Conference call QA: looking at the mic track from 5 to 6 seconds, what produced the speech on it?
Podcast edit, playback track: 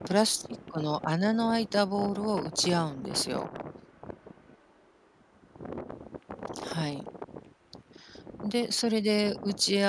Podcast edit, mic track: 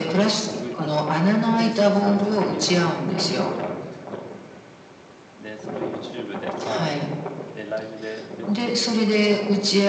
user only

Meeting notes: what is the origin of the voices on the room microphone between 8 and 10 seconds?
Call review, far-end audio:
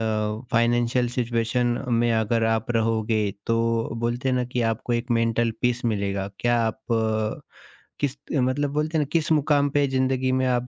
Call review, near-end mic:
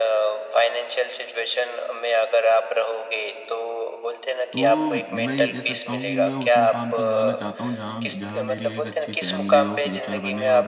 both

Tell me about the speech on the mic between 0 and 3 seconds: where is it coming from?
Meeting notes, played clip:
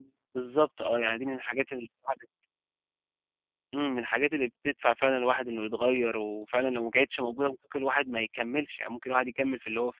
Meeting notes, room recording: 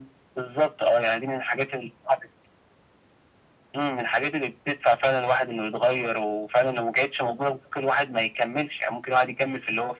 echo only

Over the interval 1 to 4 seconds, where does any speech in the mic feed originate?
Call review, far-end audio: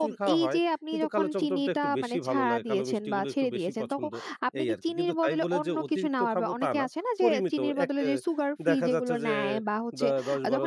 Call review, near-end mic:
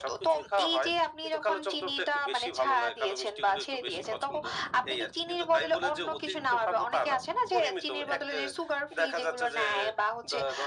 echo only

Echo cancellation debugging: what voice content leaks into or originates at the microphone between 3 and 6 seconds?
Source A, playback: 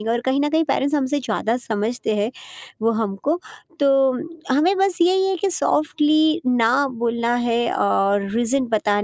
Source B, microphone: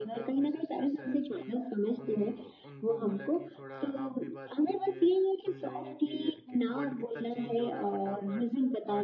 both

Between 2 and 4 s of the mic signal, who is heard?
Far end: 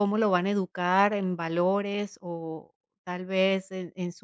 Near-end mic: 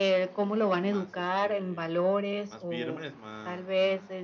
both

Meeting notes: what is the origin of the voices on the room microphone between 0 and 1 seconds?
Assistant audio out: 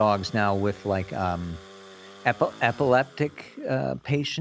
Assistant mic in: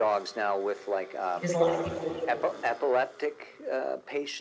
echo only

